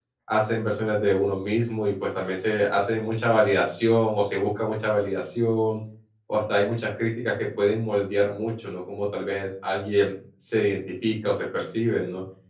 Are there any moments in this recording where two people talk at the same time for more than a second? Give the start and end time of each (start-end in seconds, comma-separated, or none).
none